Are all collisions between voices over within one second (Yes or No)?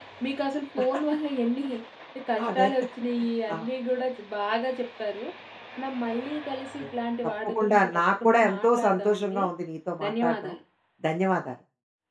No